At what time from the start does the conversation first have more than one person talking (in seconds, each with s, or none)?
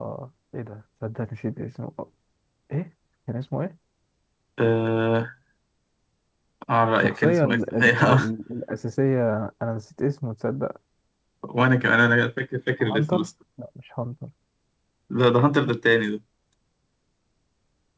6.9 s